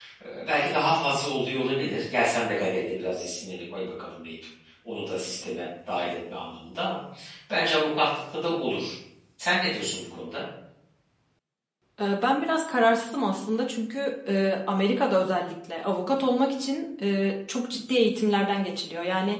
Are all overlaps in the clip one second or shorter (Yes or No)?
Yes